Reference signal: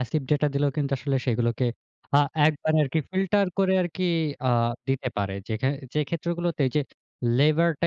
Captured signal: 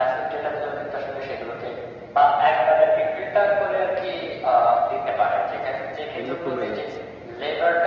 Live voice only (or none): এগুলো কমে যাচ্ছে।